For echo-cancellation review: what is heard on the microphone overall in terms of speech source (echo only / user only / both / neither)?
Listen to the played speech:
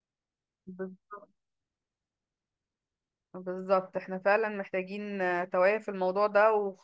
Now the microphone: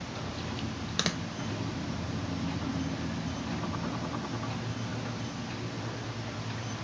neither